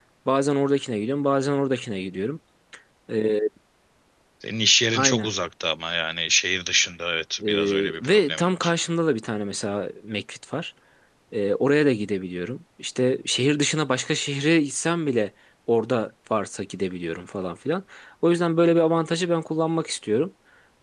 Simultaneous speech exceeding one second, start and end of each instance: 7.5-8.7

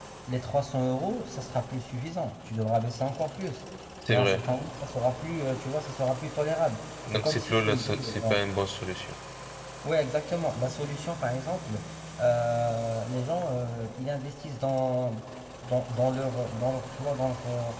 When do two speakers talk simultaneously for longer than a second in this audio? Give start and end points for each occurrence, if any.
7.1-8.4

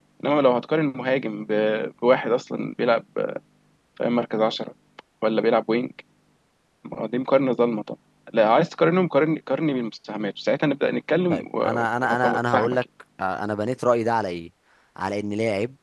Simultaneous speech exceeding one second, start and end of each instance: 11.3-12.8

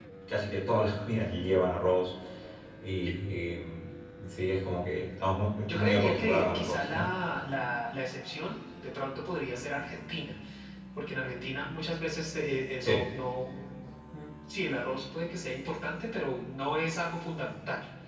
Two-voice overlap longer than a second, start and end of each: 5.7-7.1

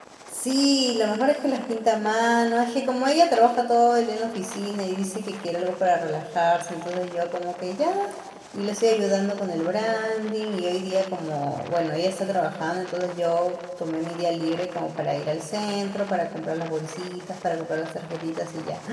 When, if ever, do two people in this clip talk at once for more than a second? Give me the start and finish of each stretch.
none

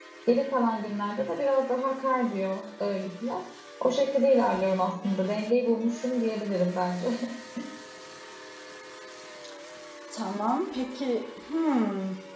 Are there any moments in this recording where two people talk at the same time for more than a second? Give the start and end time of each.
none

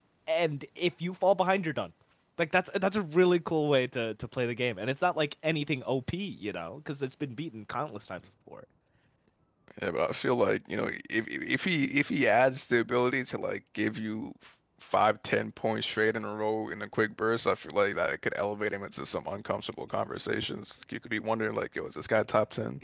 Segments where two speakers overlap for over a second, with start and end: none

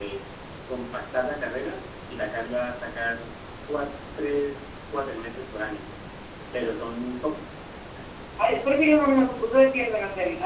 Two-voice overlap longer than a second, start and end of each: none

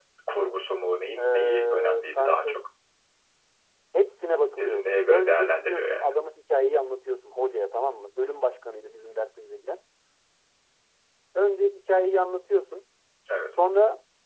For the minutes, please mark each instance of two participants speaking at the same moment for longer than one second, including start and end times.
1.2-2.6, 4.6-6.1

